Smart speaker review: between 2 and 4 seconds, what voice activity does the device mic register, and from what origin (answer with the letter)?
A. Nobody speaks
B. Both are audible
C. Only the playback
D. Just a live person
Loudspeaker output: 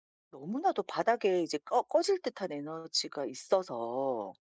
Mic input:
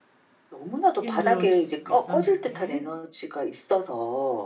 B